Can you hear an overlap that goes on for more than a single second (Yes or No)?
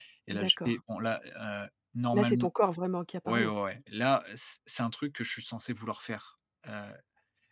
No